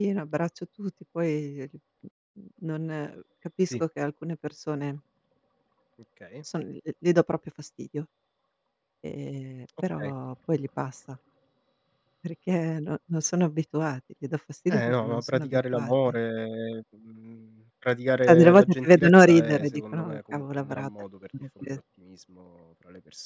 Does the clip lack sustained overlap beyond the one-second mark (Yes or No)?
No